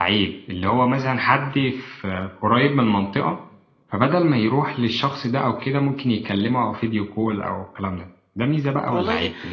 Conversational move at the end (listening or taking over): taking over